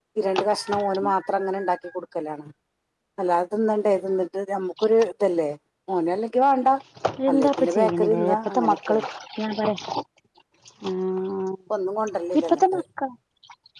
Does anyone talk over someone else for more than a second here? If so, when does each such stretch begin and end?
7.3-9.0

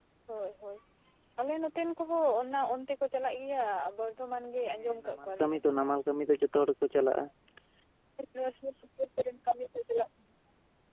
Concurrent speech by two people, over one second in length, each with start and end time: 4.8-6.0

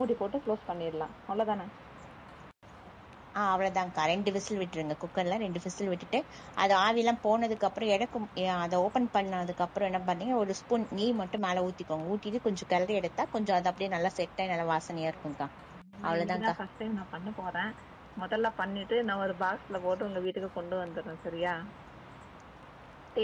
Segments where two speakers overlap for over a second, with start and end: none

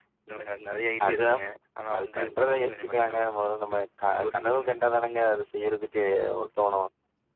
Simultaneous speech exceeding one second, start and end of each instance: 1.9-3.2

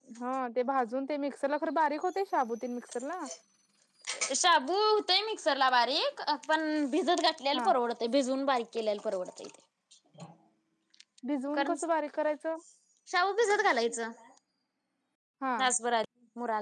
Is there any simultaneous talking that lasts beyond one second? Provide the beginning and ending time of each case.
none

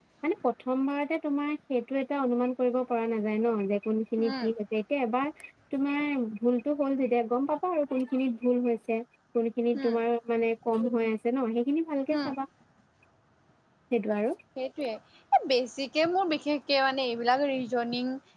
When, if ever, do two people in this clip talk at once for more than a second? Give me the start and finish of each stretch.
none

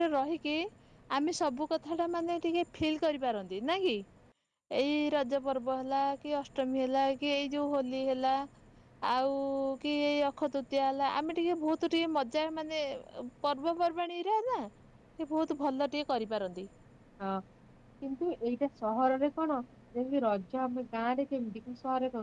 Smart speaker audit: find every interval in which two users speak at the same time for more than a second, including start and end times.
none

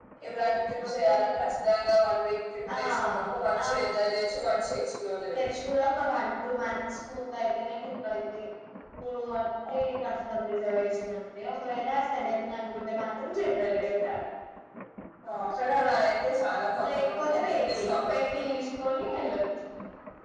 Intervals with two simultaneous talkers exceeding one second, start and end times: 16.9-18.2

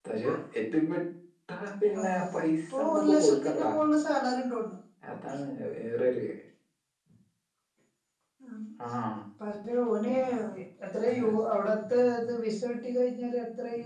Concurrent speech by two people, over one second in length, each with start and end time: 2.0-3.7

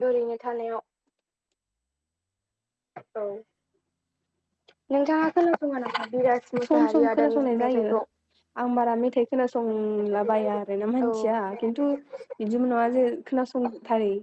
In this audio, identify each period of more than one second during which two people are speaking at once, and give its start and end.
6.7-7.9

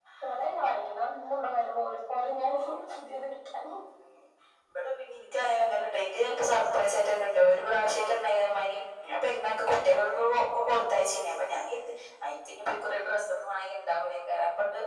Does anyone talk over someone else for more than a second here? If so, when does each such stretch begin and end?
none

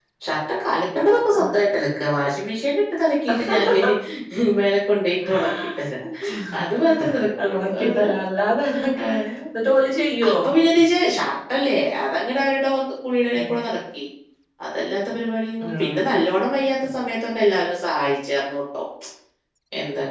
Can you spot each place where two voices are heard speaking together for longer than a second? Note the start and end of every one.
6.8-8.1

